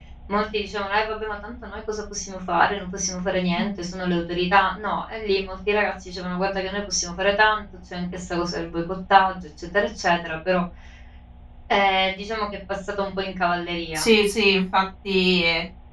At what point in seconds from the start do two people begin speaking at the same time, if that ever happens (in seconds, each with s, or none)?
none